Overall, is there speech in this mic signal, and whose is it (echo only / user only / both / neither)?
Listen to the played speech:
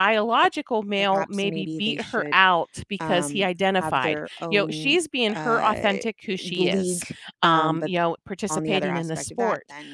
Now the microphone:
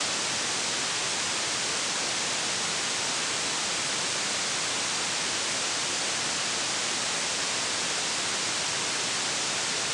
neither